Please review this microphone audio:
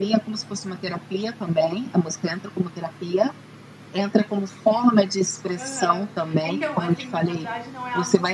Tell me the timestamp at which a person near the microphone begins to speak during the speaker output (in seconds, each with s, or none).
5.6 s